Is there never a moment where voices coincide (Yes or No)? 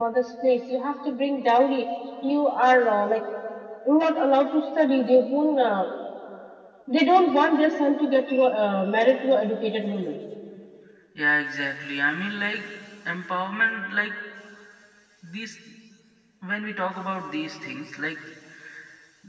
Yes